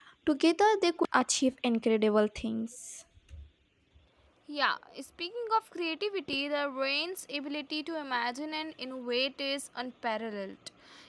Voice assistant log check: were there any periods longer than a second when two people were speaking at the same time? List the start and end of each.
none

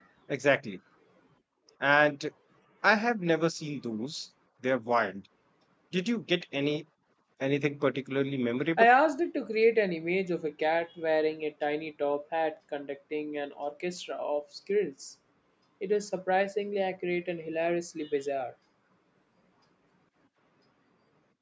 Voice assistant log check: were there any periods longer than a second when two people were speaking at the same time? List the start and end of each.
none

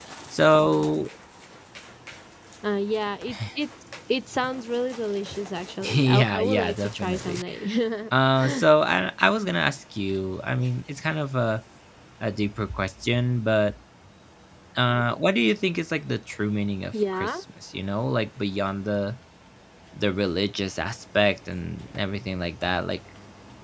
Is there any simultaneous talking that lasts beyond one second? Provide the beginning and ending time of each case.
6.0-7.4

